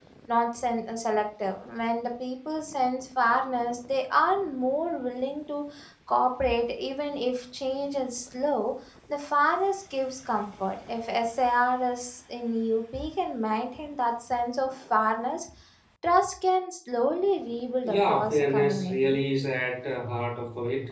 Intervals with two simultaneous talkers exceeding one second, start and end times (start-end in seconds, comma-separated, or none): 17.8-19.2